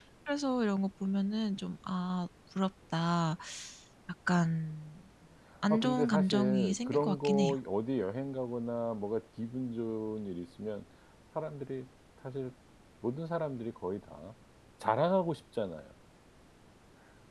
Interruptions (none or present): present